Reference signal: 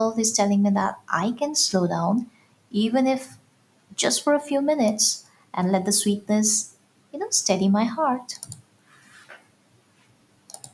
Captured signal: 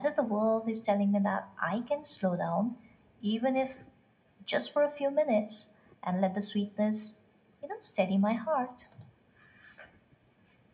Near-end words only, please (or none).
none